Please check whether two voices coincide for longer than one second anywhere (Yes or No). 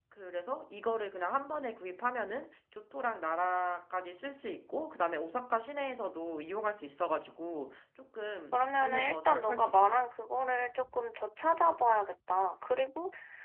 Yes